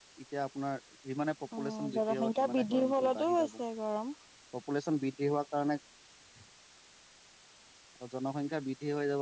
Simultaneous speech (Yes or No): Yes